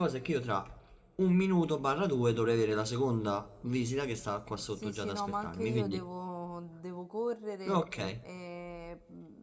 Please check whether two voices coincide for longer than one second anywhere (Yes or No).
Yes